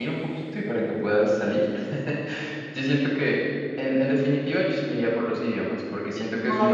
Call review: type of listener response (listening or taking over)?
listening